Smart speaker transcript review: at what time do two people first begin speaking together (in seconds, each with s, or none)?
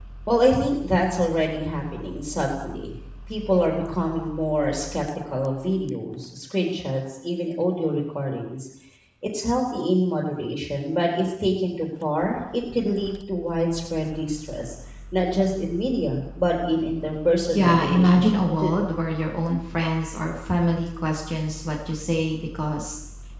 17.5 s